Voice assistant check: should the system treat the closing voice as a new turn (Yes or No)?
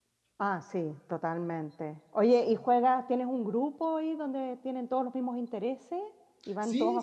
Yes